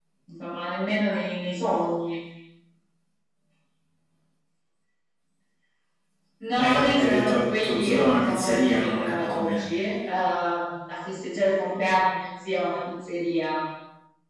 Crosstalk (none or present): present